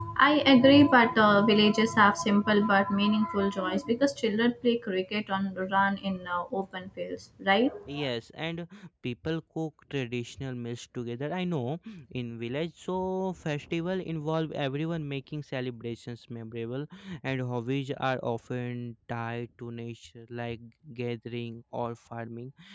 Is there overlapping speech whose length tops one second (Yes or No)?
No